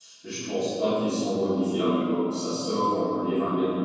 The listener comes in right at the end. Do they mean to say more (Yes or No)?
No